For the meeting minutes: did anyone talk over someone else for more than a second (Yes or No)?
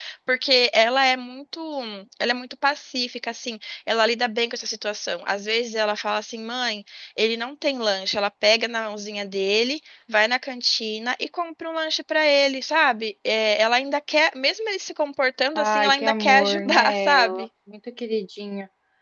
Yes